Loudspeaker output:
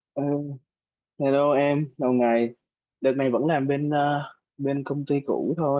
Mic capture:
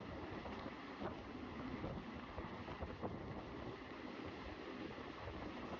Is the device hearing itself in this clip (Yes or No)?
No